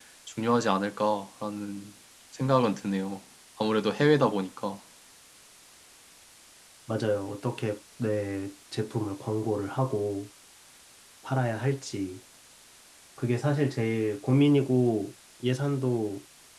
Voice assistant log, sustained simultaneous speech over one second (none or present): none